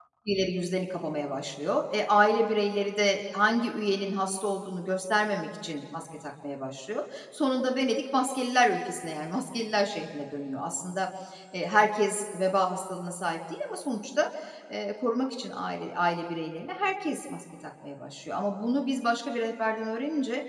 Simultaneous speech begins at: none

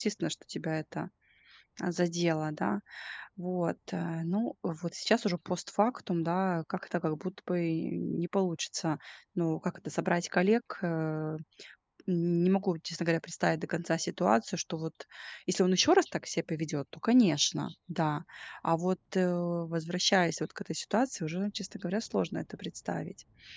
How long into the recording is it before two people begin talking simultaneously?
none

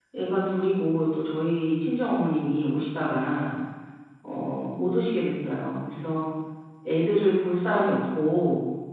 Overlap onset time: none

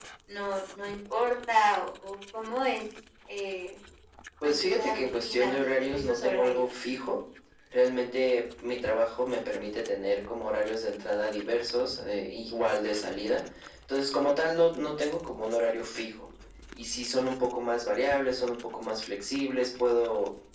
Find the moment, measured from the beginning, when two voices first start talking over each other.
4 s

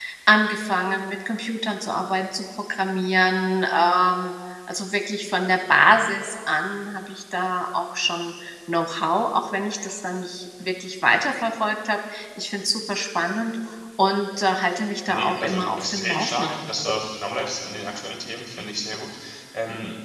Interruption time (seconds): 15 s

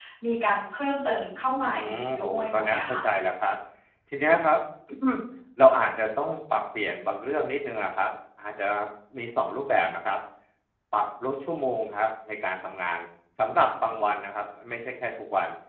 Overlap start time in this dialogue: 2 s

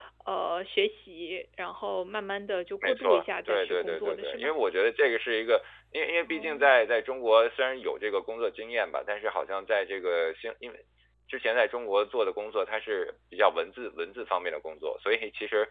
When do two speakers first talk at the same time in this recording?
3 s

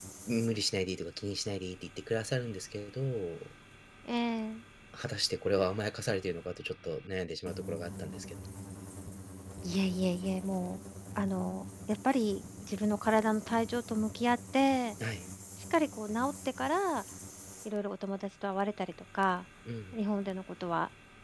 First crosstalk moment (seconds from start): none

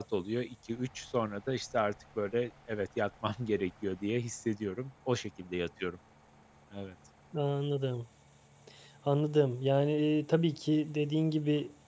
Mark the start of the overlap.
none

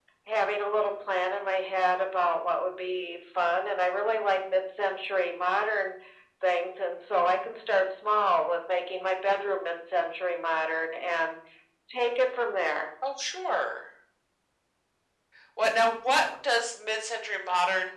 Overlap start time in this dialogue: none

